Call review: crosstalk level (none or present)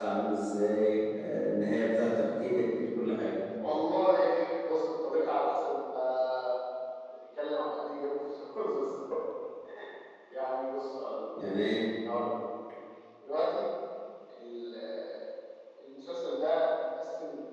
none